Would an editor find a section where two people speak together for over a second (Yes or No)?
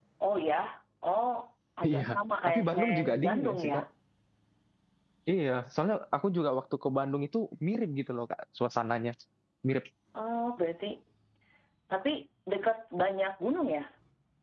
Yes